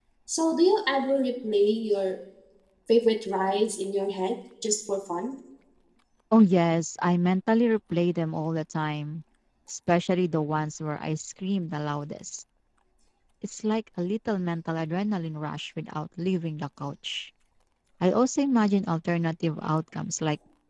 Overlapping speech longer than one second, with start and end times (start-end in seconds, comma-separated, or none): none